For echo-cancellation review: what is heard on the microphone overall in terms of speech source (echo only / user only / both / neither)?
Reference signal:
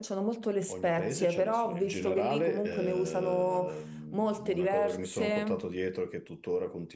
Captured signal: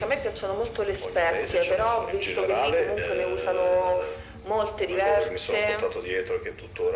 echo only